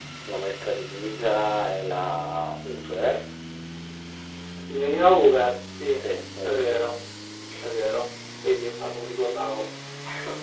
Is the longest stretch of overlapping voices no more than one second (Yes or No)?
Yes